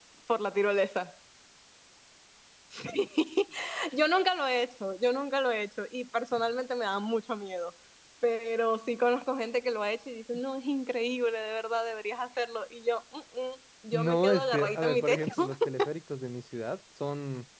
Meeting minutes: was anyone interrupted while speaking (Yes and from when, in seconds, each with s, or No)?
Yes, from 13.9 s